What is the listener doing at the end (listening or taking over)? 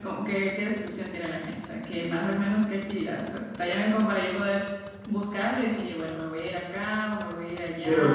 taking over